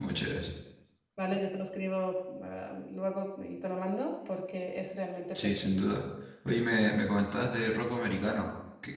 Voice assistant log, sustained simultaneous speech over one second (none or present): none